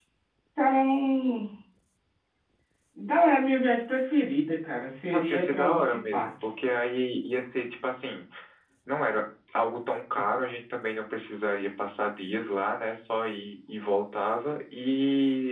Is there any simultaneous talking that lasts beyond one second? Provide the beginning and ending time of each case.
5.1-6.3

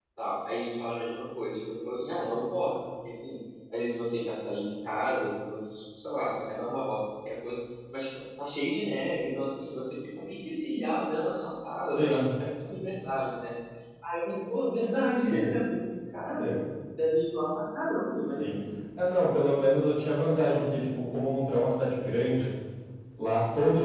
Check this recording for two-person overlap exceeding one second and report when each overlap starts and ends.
none

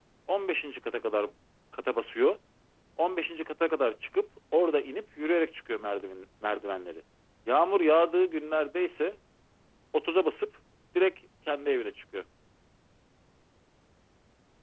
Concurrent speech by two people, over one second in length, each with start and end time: none

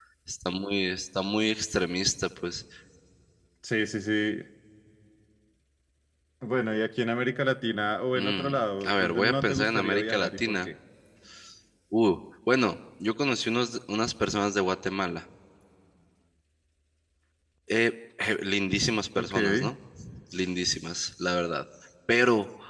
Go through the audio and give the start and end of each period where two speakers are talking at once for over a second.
8.2-10.7

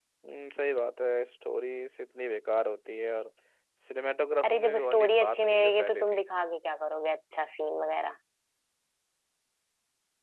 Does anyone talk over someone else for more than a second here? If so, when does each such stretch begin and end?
4.5-6.2

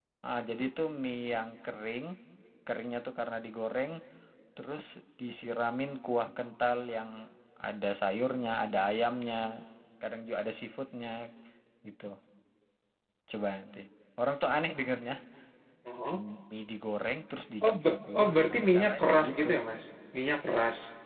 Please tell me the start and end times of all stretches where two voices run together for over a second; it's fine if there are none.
17.6-19.5

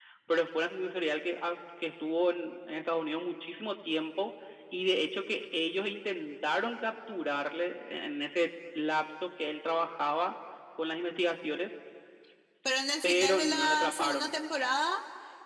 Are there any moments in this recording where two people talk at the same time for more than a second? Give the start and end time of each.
13.0-14.3

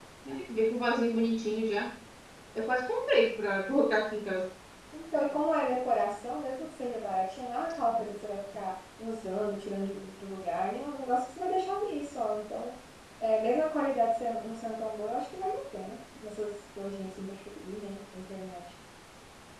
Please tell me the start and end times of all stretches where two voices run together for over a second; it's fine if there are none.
none

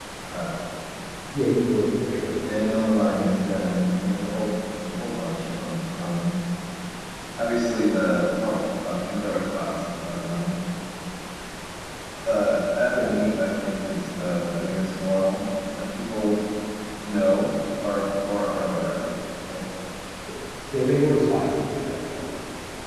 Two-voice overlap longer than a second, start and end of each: 2.5-3.9

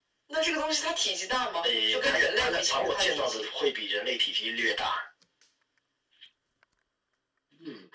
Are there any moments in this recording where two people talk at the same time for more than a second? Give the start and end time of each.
1.6-3.5

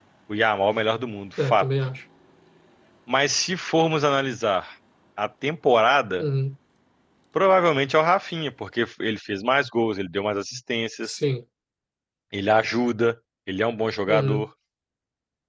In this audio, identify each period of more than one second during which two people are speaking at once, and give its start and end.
none

